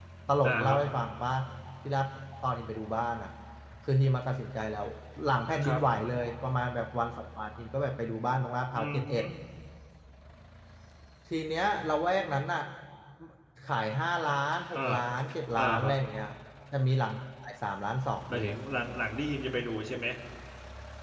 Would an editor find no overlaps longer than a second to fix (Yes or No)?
Yes